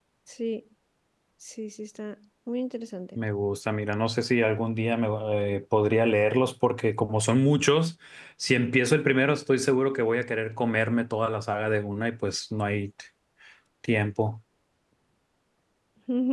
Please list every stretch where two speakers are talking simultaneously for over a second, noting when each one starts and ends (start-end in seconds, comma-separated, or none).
none